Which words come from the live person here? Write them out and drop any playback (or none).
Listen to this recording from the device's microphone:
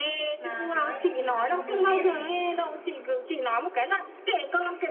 mà tiếng Anh thì là môn điều kiện